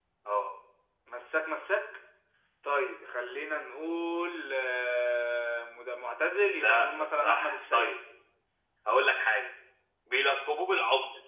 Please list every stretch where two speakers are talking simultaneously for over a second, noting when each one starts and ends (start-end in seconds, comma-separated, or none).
6.5-8.0